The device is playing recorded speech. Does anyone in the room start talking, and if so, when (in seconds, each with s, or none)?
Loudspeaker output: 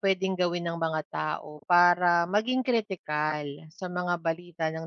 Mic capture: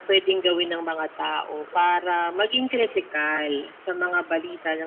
none